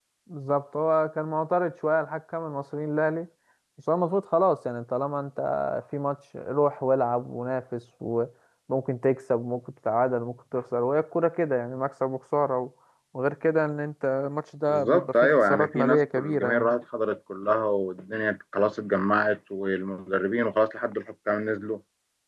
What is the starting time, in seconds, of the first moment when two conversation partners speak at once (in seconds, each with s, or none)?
14.7 s